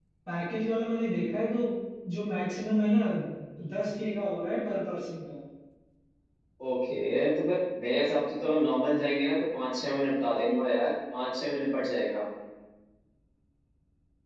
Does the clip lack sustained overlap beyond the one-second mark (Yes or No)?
Yes